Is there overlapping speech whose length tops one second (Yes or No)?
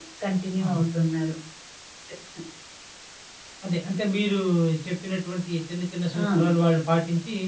No